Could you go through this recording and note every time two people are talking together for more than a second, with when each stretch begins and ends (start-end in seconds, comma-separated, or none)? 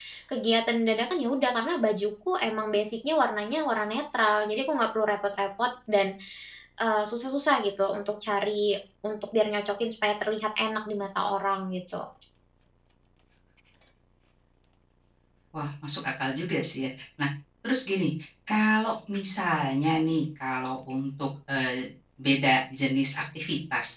none